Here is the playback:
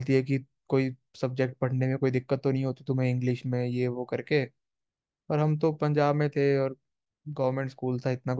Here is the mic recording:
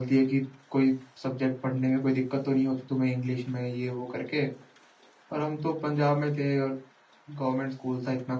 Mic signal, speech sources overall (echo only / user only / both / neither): echo only